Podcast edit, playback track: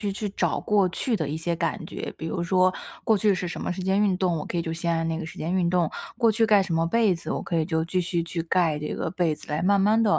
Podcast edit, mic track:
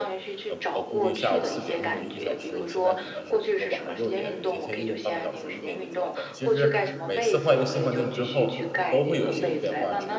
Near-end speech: present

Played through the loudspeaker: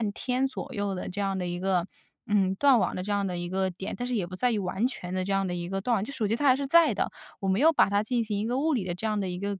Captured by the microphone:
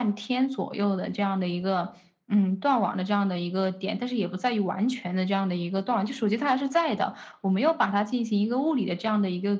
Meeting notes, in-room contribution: none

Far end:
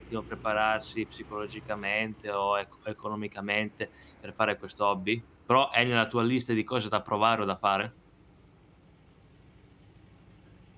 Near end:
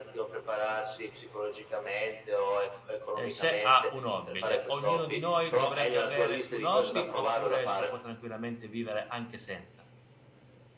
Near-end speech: present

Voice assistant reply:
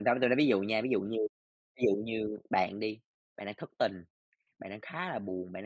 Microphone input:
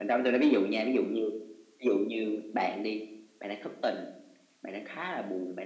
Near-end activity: none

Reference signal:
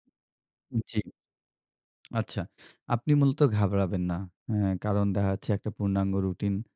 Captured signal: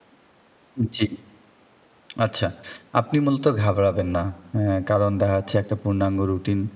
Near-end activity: none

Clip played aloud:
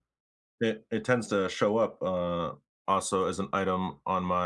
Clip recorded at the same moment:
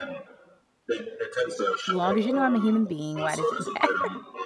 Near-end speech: present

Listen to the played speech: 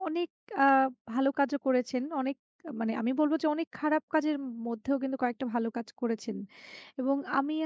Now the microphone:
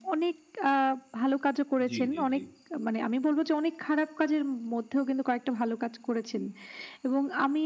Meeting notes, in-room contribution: present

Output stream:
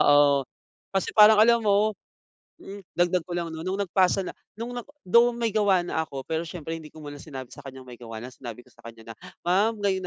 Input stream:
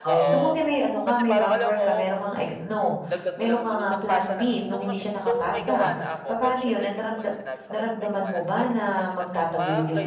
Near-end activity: present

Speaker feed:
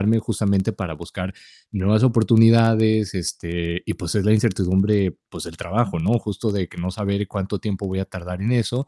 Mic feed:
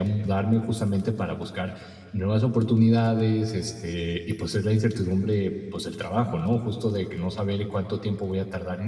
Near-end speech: none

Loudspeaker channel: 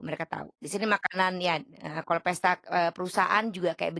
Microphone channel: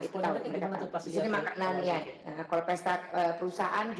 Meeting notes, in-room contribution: present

